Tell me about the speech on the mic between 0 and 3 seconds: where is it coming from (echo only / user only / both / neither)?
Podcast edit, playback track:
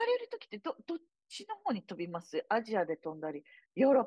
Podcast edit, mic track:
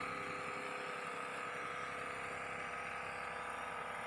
neither